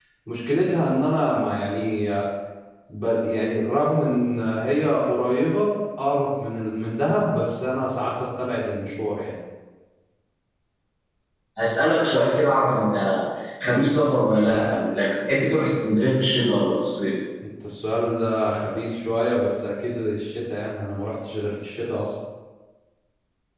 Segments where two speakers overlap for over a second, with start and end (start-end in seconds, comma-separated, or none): none